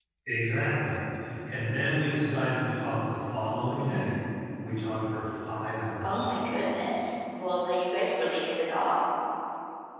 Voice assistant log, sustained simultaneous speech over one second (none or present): none